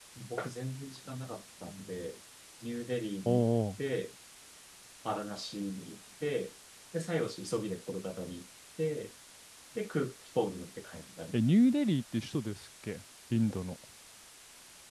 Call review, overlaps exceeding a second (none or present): none